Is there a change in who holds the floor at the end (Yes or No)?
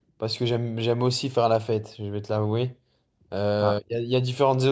No